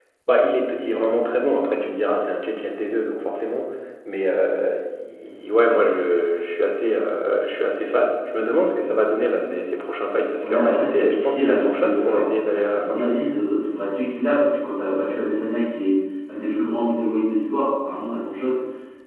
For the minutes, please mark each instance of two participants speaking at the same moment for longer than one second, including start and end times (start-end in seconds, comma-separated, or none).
10.4-13.1